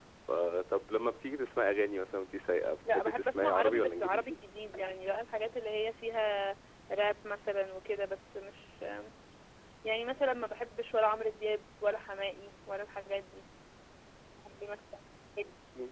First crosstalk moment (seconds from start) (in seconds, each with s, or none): 2.9 s